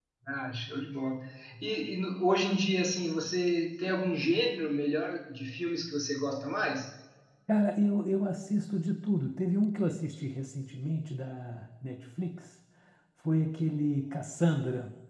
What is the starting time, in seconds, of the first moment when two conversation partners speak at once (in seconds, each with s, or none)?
none